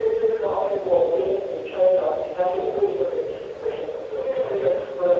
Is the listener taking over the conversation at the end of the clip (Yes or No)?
No